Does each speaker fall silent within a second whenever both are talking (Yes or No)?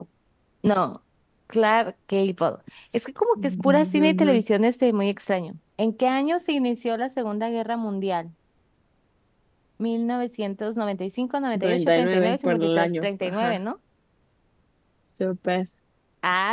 No